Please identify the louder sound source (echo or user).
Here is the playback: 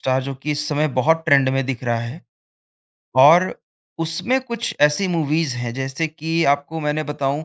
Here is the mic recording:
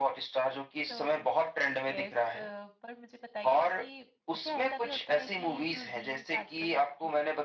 echo